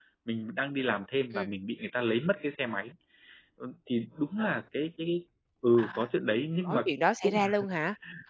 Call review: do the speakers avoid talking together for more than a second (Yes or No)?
Yes